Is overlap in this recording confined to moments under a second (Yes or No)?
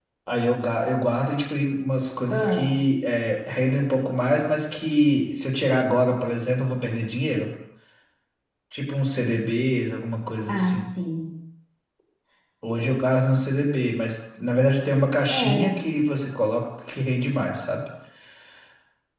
Yes